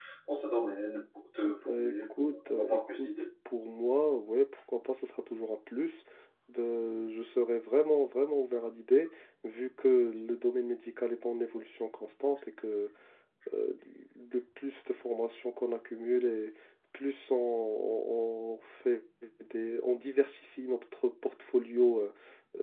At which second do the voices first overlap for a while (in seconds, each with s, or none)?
1.4 s